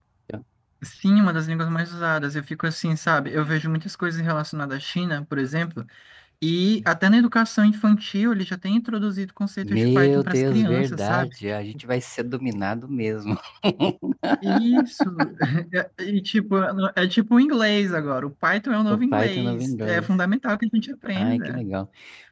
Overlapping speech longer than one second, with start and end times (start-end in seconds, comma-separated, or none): 9.6-11.3, 18.9-20.1